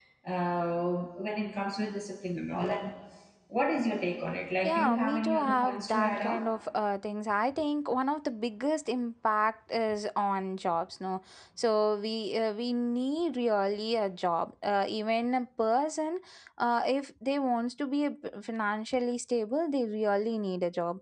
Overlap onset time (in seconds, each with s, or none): 4.6 s